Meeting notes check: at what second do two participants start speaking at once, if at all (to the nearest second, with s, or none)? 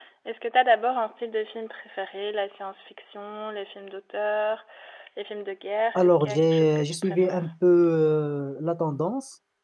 6 s